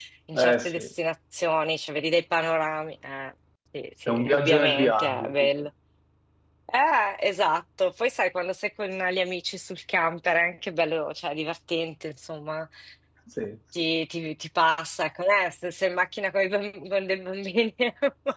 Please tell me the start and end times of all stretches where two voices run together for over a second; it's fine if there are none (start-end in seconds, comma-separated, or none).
4.1-5.5